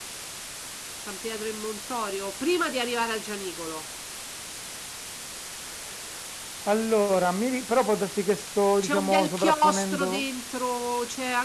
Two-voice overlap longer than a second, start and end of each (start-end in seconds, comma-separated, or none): 8.8-10.2